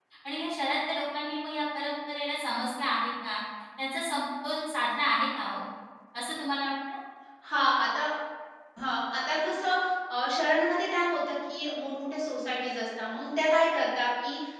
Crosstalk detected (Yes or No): No